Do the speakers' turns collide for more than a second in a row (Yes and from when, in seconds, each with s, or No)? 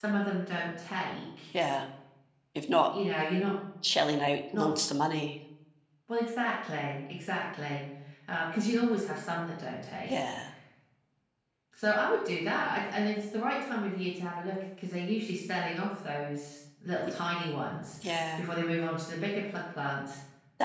No